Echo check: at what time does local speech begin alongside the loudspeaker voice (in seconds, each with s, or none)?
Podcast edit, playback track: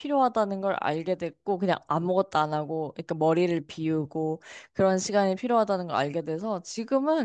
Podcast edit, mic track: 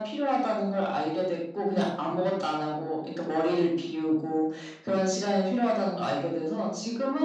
none